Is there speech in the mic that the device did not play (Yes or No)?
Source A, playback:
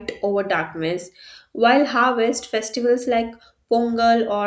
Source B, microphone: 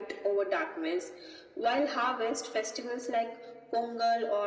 No